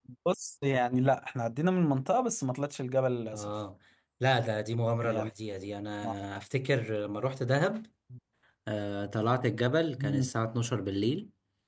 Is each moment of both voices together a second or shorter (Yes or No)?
Yes